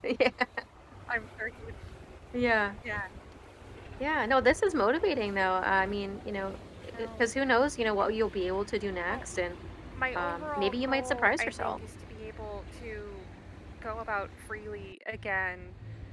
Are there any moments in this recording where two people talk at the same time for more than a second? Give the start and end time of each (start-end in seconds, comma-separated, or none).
10.2-11.8